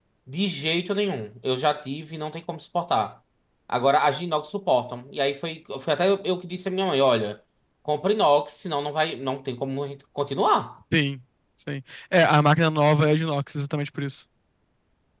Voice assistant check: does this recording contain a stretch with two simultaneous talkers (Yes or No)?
No